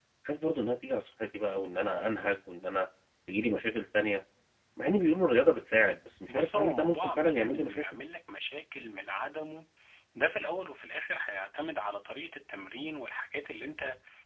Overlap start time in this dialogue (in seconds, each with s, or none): 6.3 s